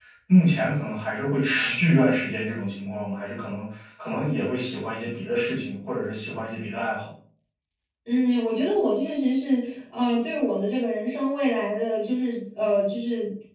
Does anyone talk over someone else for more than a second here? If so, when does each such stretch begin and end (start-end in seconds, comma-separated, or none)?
none